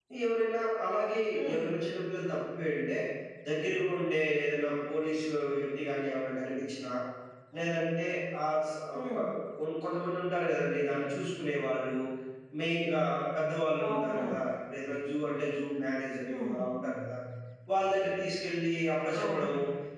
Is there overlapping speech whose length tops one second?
No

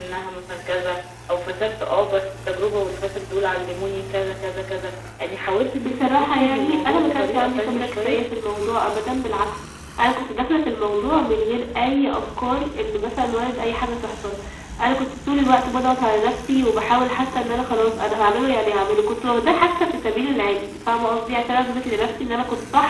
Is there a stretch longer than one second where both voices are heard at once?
Yes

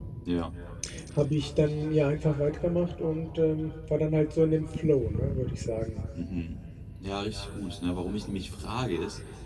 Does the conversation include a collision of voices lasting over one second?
No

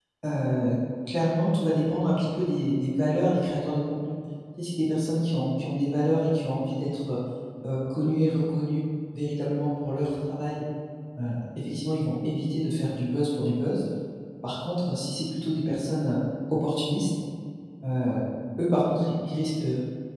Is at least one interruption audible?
No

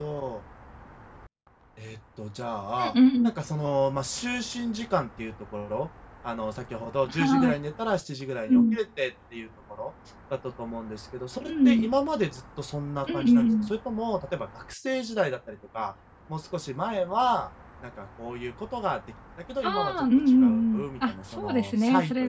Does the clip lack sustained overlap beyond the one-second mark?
No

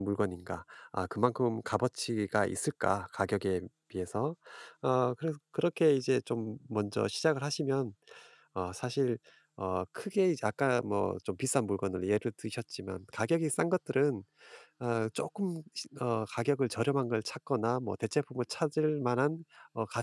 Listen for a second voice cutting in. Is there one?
No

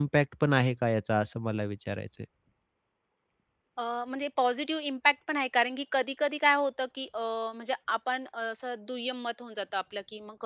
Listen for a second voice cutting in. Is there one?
No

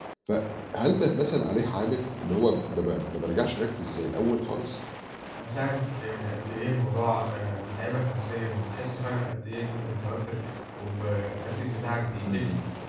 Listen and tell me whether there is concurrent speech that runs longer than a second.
No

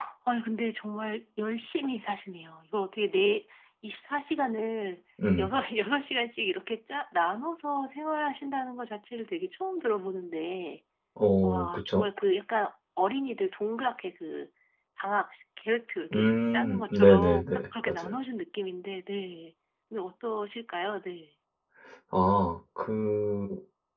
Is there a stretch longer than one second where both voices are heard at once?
Yes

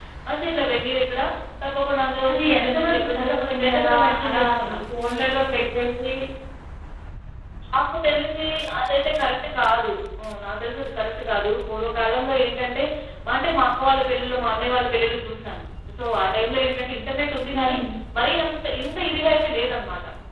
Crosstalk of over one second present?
Yes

